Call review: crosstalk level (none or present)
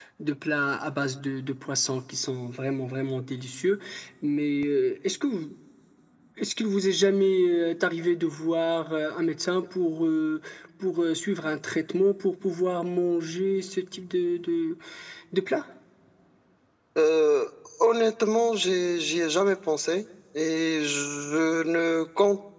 none